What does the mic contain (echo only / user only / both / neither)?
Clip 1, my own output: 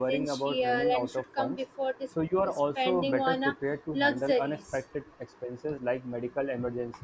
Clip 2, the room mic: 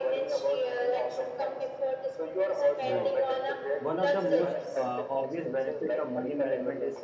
both